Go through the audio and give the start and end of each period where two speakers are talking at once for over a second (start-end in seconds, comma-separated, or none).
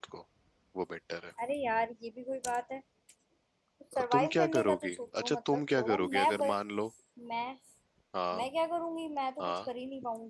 4.1-6.5